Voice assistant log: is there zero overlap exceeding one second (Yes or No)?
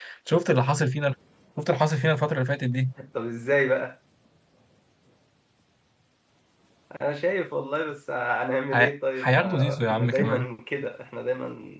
No